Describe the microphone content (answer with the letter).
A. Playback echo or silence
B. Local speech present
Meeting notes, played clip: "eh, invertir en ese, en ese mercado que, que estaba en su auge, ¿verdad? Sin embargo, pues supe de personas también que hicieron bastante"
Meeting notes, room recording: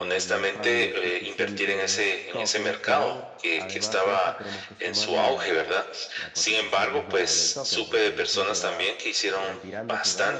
B